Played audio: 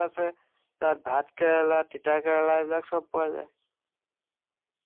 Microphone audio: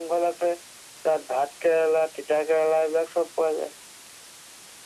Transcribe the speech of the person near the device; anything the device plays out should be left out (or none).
none